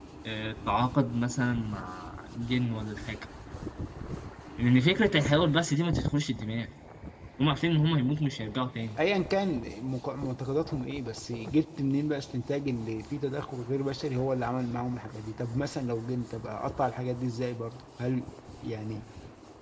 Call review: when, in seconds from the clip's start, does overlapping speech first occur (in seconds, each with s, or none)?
none